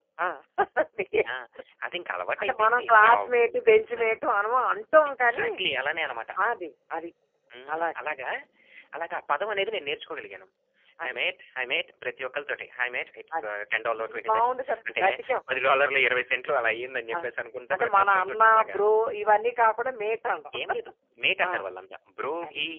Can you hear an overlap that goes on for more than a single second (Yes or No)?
Yes